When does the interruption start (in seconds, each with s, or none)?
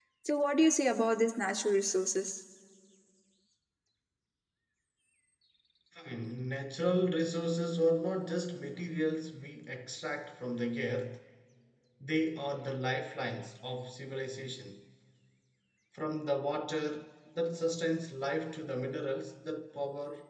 none